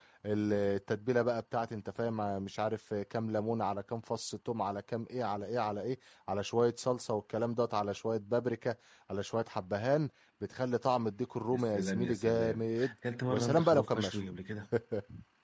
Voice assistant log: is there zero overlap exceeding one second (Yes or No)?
No